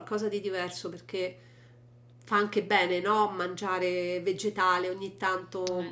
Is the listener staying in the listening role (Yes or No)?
Yes